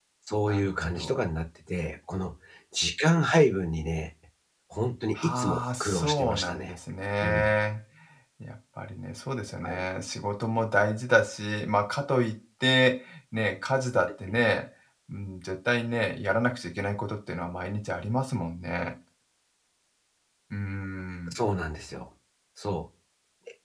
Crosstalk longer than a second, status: present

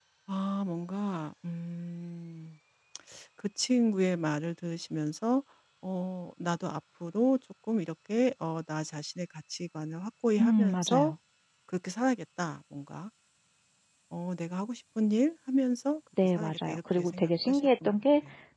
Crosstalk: present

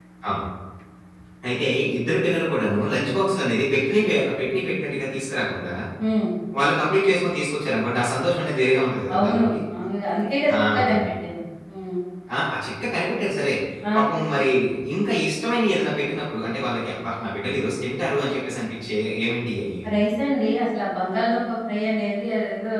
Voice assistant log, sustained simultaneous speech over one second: none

